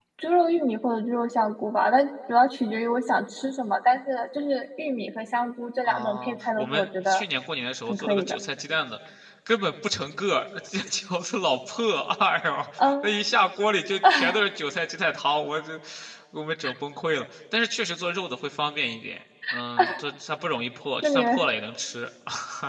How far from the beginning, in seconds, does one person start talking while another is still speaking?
5.8 s

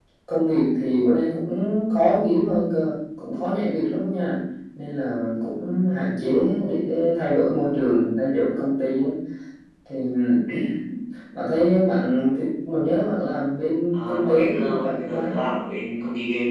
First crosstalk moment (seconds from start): 13.9 s

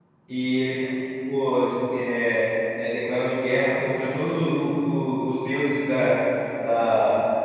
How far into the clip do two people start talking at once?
none

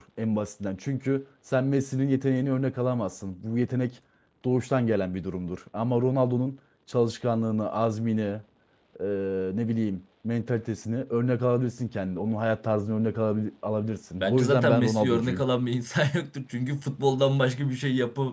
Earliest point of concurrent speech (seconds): 14.2 s

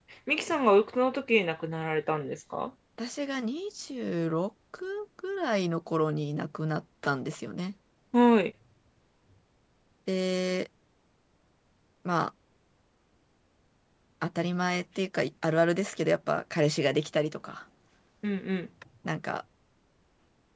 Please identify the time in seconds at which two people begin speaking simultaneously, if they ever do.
none

